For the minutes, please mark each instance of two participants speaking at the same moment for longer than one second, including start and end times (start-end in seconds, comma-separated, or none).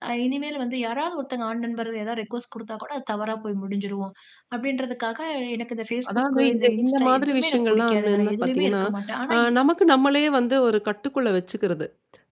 6.1-8.8